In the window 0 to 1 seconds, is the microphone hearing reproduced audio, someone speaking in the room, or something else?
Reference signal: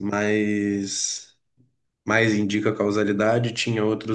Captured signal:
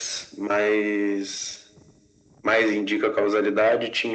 echo only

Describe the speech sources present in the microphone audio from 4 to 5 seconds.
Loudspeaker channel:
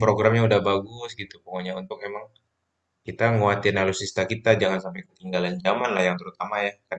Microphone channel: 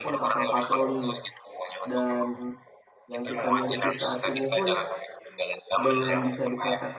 both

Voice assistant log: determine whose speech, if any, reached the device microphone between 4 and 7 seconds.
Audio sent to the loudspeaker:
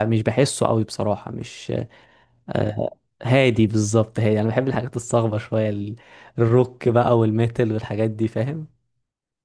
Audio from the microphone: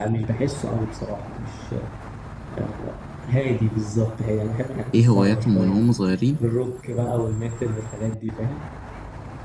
both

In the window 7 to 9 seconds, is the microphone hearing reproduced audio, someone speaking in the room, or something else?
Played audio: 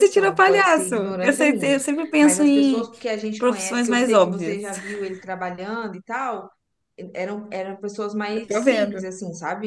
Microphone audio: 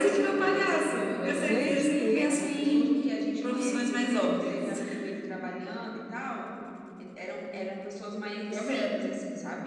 echo only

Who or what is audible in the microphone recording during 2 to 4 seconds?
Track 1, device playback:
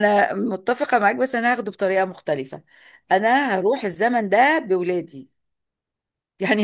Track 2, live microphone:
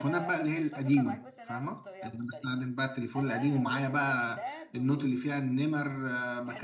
both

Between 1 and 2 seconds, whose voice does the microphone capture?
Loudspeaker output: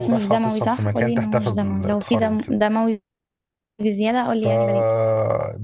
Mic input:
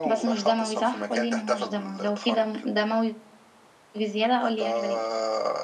echo only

